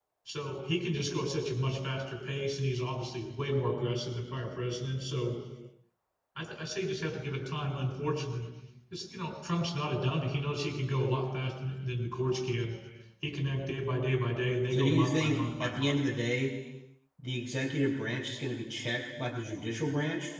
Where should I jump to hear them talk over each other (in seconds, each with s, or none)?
14.7 s